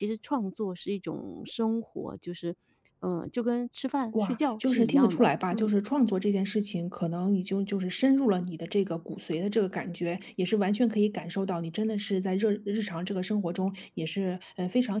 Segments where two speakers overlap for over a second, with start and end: 4.1-5.7

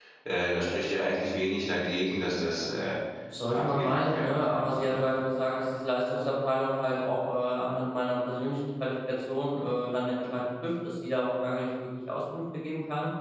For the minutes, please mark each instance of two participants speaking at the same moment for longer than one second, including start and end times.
3.5-5.0

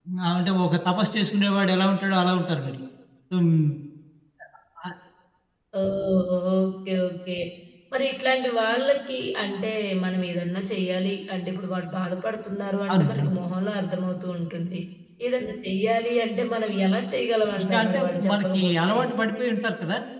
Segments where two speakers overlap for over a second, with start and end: 17.7-18.9

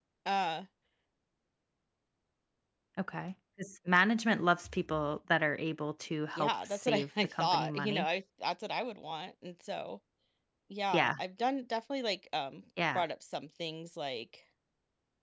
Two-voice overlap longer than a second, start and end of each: 6.4-8.1

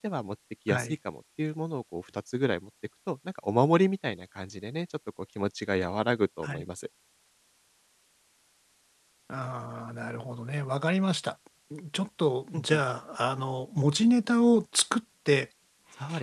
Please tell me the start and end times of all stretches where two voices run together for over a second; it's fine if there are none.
none

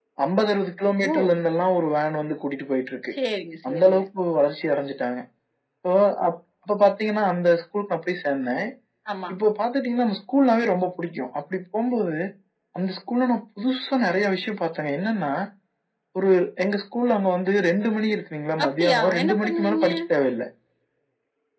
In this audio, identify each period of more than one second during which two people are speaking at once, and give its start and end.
18.6-19.9

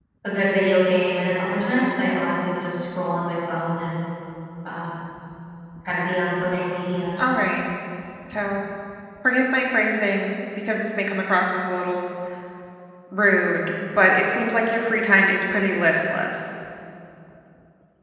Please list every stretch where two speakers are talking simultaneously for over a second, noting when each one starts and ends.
none

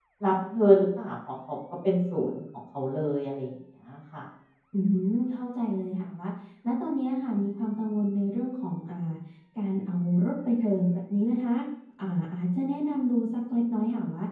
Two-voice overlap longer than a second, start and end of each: none

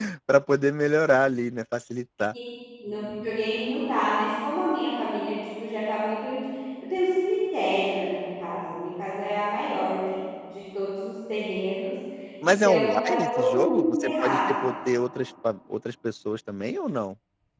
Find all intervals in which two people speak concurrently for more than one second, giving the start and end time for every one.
12.5-14.4

